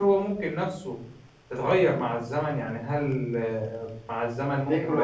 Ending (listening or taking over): listening